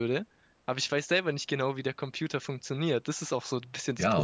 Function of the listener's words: taking over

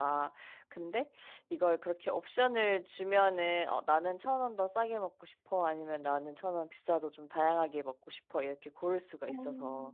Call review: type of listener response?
taking over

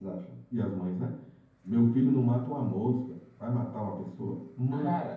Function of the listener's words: taking over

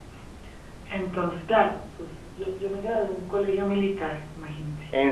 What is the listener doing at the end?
listening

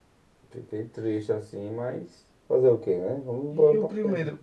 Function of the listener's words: taking over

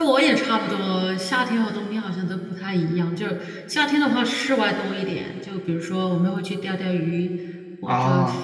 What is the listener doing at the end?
listening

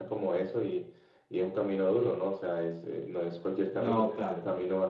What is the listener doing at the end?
listening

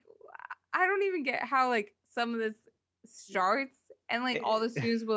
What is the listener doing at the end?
listening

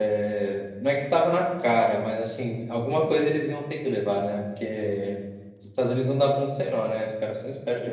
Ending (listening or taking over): taking over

